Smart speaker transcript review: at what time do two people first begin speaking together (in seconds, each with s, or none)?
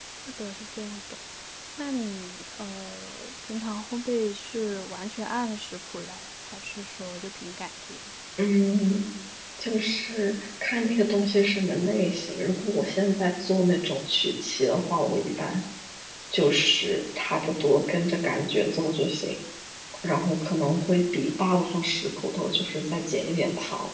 none